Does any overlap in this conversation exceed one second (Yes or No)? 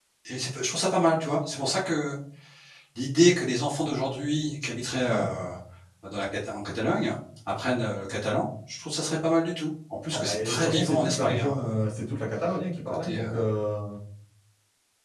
Yes